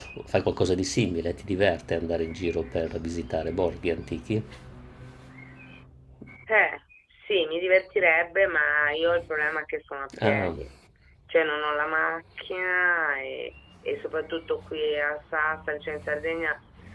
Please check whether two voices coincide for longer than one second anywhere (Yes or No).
No